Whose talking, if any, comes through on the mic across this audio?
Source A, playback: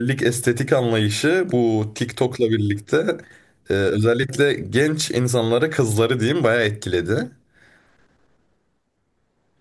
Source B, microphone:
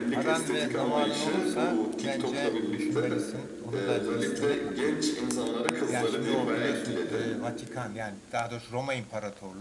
both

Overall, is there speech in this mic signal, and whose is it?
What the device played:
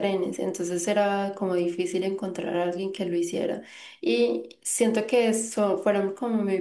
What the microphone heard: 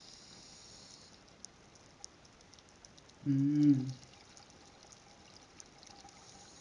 user only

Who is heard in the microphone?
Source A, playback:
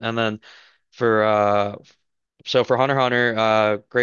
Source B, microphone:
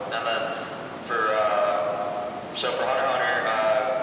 echo only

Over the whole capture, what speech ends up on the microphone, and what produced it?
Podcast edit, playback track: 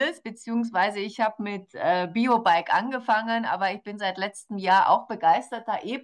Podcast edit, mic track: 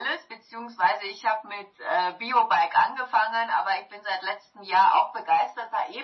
echo only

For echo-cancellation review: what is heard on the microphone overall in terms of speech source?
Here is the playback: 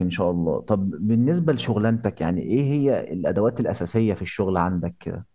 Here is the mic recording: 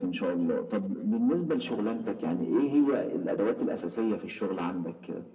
echo only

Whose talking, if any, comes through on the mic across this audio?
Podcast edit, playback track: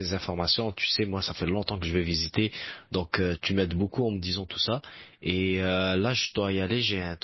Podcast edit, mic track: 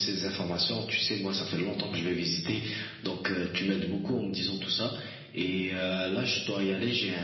echo only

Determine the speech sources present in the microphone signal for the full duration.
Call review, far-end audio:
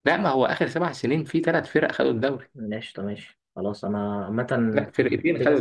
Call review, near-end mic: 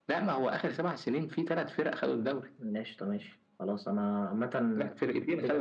echo only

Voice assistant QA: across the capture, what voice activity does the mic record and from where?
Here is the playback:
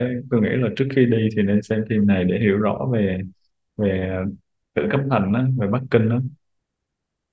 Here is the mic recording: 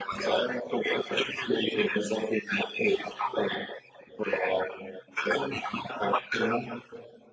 echo only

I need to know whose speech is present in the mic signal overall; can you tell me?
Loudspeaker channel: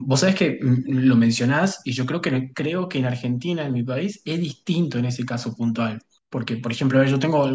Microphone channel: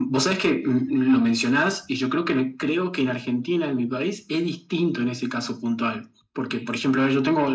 echo only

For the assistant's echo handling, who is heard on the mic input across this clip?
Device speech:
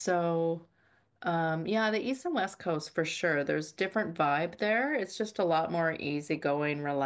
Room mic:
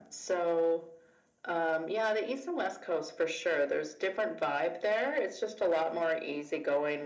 echo only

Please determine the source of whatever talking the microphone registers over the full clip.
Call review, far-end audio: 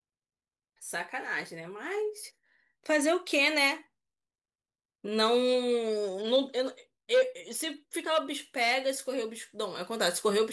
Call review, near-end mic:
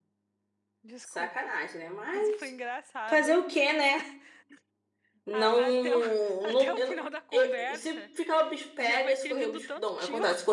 both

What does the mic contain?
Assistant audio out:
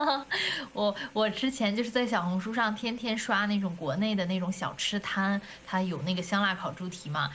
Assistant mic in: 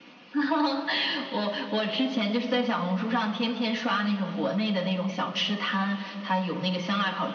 echo only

